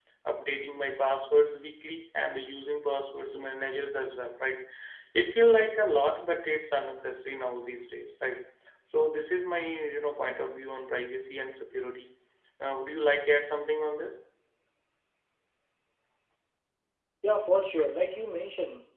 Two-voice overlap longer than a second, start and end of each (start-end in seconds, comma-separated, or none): none